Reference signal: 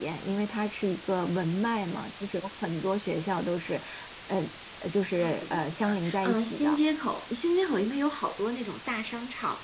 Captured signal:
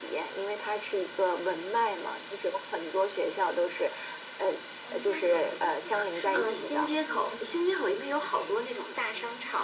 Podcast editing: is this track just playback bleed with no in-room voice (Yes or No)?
No